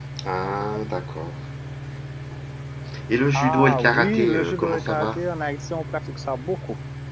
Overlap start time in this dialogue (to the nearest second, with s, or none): 3 s